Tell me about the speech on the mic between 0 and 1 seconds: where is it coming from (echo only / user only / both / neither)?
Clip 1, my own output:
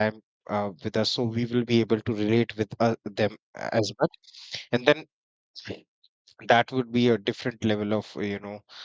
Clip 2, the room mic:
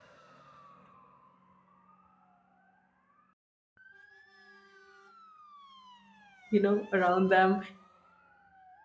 neither